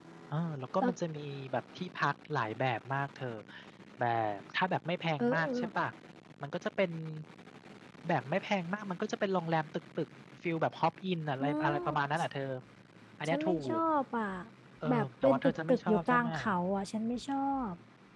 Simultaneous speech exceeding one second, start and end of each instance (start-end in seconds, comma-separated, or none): 14.9-16.3